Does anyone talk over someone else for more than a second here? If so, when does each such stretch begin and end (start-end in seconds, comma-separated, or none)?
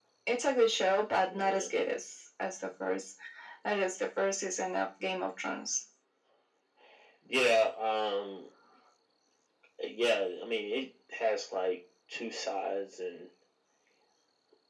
none